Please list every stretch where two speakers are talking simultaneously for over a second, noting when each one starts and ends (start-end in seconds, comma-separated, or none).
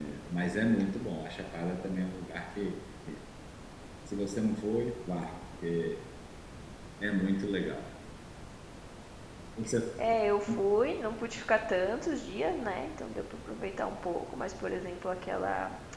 none